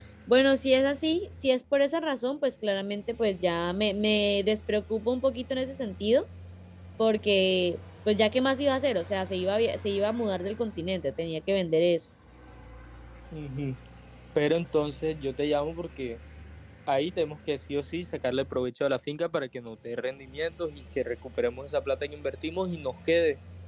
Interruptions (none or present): none